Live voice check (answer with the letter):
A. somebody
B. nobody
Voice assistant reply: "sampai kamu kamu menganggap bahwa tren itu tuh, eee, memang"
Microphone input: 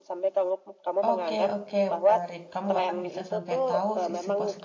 A